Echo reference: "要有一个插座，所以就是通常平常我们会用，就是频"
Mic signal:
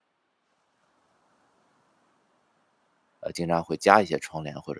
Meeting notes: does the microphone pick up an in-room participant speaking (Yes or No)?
Yes